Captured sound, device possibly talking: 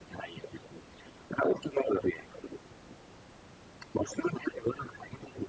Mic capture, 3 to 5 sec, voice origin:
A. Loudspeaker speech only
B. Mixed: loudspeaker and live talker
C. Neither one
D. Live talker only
A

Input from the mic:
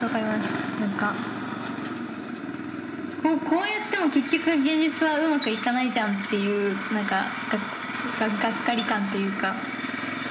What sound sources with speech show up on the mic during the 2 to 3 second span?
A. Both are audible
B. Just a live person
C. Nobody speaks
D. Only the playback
C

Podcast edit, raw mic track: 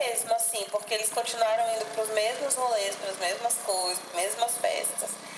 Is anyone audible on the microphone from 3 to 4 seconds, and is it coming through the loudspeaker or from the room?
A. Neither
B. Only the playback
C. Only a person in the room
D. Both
B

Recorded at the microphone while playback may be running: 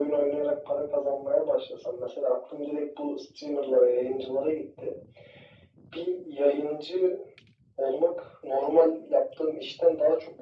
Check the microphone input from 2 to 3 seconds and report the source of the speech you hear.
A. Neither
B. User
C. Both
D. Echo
D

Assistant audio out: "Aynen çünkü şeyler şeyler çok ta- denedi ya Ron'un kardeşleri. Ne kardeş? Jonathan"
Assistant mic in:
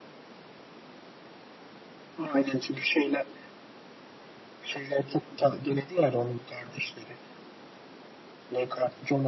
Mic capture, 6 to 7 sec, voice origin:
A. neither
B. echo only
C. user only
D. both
B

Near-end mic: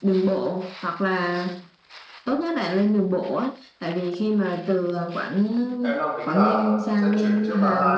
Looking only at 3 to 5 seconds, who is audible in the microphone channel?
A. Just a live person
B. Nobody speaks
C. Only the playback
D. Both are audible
C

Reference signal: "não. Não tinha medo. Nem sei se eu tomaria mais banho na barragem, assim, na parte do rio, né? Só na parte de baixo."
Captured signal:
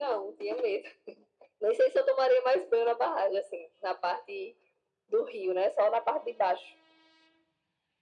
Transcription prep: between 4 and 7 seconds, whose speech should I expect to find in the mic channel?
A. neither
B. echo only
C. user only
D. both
B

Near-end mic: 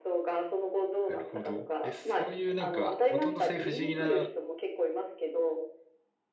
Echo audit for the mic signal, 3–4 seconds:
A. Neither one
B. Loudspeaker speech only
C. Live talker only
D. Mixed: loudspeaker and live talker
D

